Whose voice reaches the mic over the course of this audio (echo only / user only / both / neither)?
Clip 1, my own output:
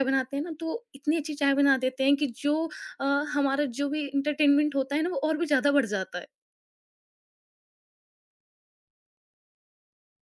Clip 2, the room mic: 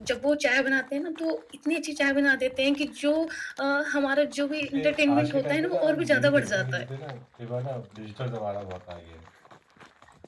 both